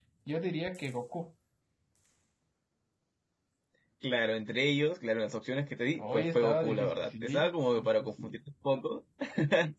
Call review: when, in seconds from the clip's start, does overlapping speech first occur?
5.9 s

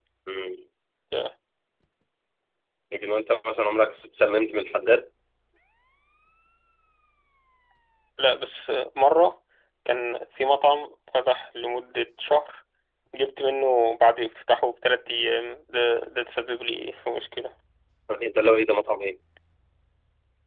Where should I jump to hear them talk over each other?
none

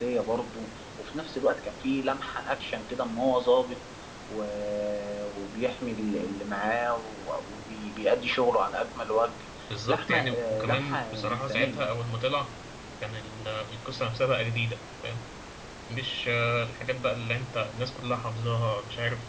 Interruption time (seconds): 9.7 s

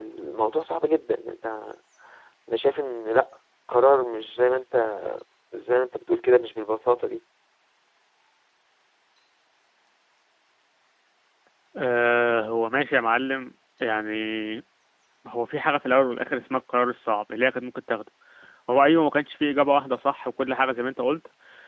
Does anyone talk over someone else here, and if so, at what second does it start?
none

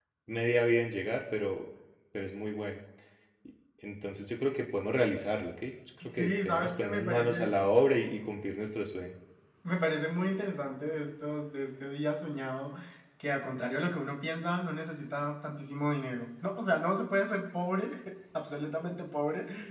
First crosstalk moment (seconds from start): 6.0 s

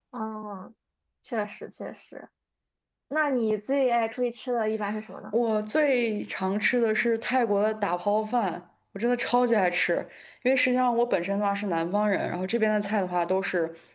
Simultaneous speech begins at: none

